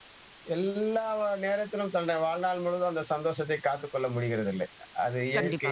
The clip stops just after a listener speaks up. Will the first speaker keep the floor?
Yes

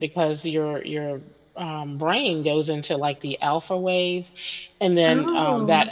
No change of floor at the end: Yes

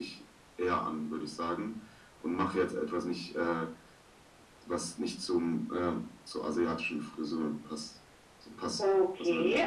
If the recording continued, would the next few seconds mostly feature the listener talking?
Yes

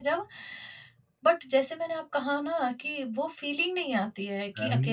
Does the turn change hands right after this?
Yes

